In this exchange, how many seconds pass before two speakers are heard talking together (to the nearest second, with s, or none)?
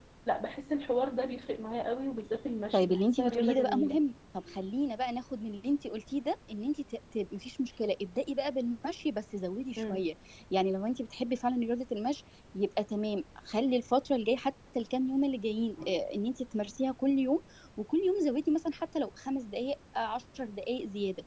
3 s